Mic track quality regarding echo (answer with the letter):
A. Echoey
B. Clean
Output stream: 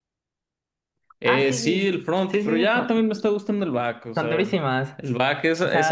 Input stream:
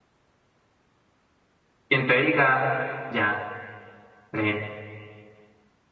B